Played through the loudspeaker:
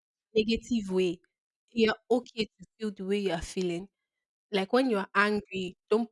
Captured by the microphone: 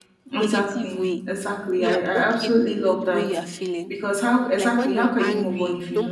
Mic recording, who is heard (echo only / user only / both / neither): both